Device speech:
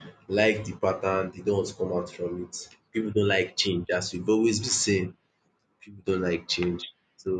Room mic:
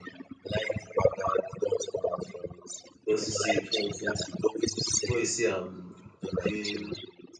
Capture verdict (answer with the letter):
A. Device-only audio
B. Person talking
B